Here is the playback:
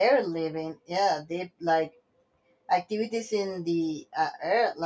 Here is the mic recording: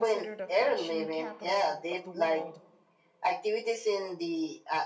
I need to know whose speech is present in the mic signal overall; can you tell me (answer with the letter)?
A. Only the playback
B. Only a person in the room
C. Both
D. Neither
C